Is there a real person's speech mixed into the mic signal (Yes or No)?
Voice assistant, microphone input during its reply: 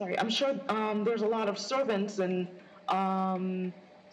No